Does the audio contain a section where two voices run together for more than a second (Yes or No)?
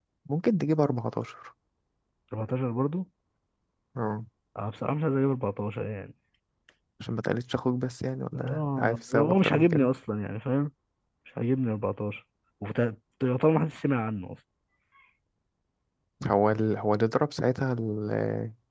Yes